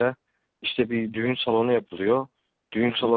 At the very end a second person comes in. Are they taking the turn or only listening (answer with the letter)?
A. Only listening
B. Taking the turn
A